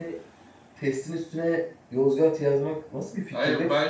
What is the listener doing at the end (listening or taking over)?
taking over